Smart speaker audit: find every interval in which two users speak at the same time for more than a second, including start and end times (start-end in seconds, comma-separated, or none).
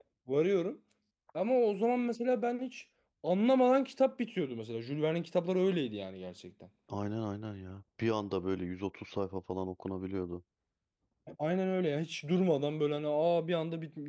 none